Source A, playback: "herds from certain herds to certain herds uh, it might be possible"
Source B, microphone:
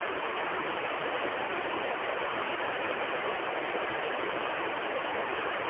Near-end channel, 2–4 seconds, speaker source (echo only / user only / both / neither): neither